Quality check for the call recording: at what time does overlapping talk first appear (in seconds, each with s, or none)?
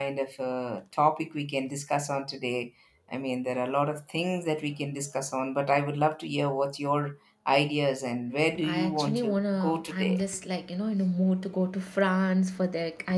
8.6 s